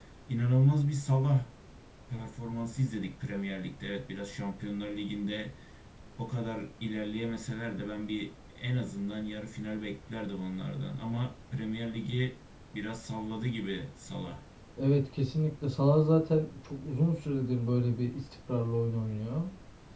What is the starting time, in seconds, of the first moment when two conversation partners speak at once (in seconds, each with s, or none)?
none